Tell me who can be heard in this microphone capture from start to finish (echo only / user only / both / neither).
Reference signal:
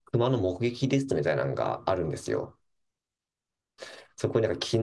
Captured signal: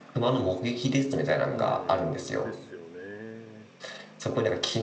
both